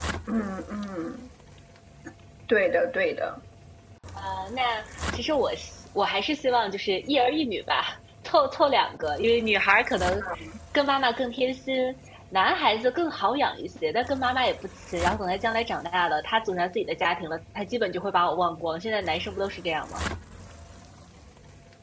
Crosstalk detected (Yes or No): No